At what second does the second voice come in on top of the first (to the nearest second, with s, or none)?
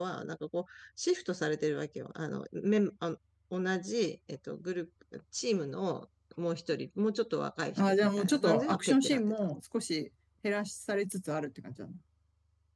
8 s